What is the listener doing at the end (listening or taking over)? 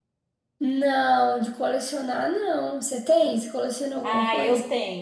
taking over